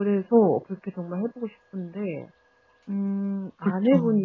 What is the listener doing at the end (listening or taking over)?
listening